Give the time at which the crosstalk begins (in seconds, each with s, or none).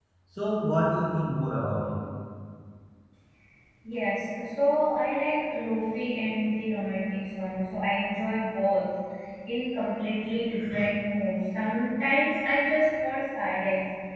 none